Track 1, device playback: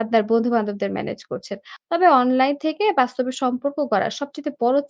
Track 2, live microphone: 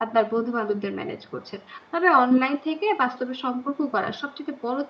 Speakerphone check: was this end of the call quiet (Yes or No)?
Yes